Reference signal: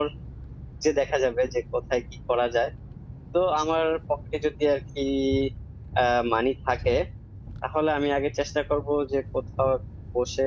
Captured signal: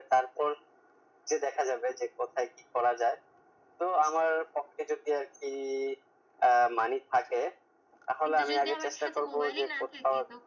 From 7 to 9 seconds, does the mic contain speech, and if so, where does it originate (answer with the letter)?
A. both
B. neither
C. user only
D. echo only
A